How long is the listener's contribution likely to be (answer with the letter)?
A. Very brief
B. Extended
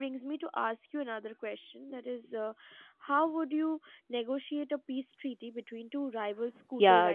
B